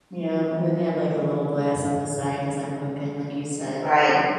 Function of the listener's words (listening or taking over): taking over